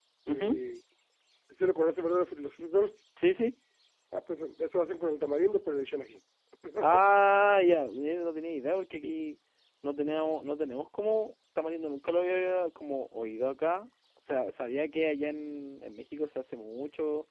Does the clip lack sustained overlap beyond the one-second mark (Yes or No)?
Yes